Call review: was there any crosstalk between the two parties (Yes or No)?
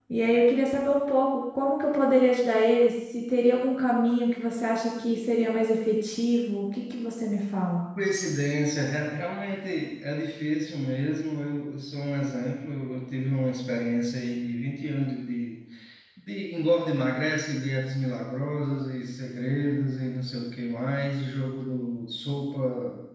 No